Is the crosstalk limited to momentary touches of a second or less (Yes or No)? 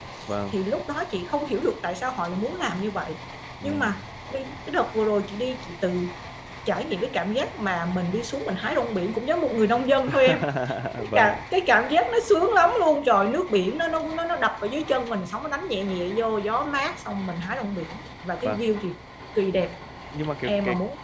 Yes